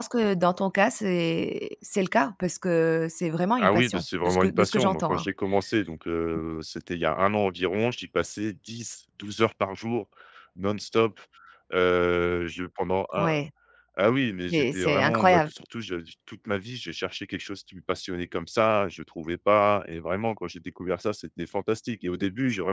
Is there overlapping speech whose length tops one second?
Yes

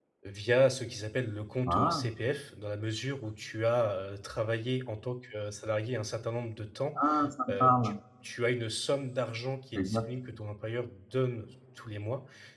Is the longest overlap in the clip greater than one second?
No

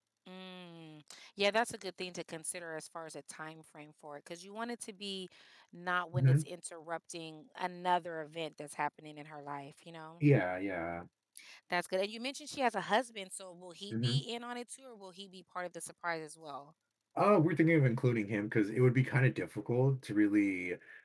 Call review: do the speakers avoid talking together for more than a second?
Yes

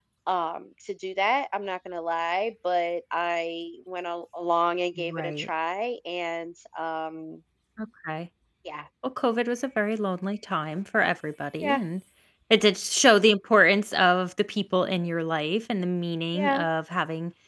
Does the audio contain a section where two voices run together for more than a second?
No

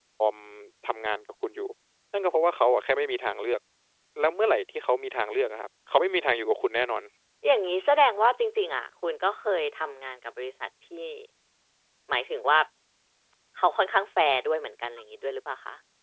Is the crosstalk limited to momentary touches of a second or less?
Yes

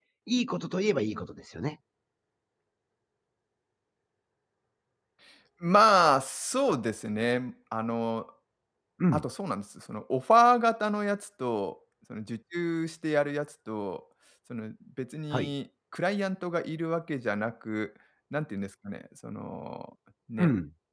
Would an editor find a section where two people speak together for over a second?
No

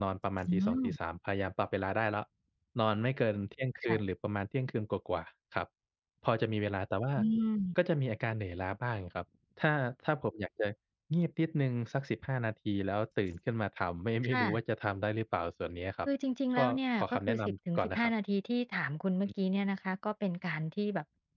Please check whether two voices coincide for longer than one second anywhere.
Yes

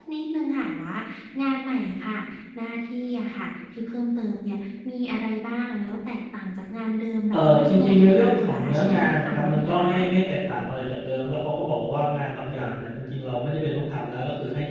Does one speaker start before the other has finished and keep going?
Yes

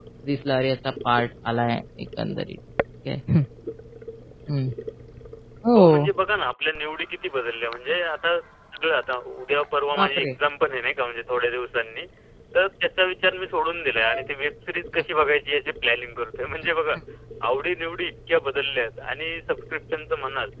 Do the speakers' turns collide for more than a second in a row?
No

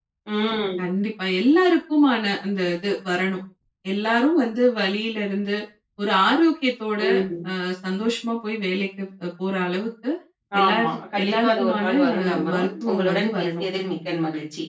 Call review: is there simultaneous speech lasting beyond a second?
Yes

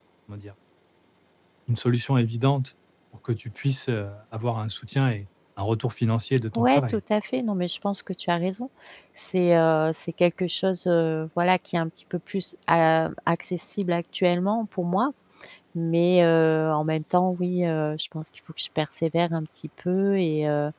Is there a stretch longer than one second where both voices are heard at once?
No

